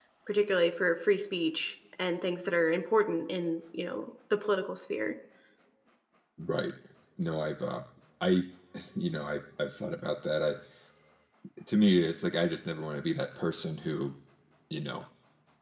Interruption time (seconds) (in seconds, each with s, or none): none